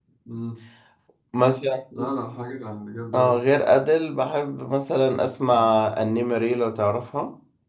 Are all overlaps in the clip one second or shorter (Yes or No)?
Yes